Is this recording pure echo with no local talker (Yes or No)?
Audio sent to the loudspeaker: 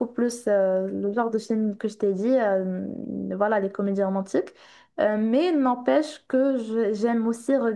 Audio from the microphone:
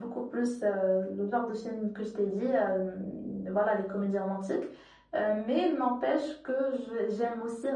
Yes